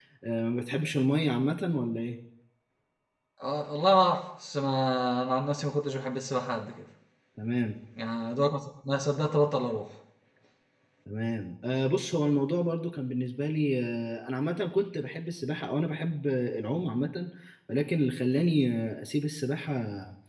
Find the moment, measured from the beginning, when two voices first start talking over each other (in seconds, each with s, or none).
none